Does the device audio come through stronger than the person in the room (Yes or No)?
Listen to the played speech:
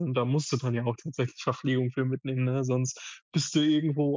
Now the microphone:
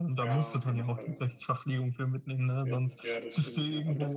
Yes